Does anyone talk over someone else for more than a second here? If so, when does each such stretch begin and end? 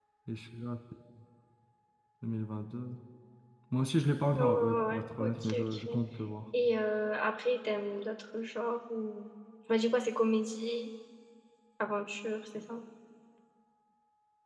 4.3-6.0

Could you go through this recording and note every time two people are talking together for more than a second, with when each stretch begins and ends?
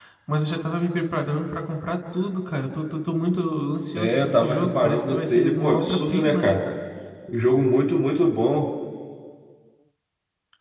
4.0-6.6

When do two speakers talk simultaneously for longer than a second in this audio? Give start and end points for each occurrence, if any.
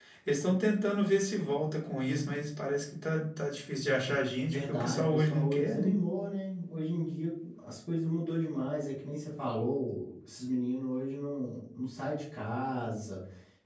4.5-5.9

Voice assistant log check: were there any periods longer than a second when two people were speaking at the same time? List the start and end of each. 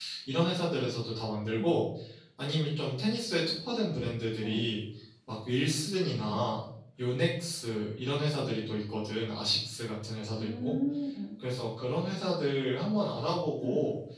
none

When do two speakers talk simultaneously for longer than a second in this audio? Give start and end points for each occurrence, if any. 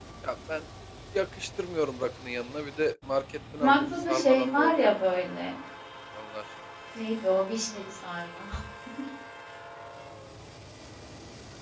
3.6-4.9

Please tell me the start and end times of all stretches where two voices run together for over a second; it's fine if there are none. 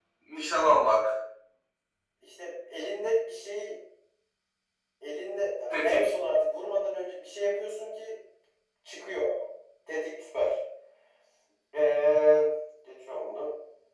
none

